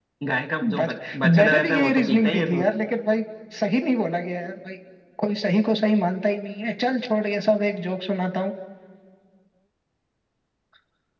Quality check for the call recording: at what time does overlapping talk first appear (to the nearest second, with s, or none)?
1 s